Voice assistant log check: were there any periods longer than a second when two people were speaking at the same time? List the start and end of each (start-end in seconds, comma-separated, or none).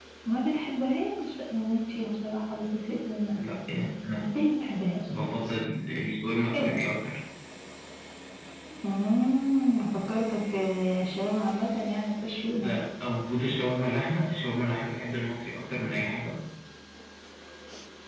none